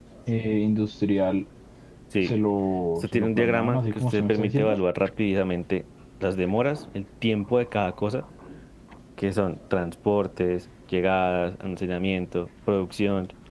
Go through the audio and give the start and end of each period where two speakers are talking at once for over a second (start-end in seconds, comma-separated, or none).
3.0-4.8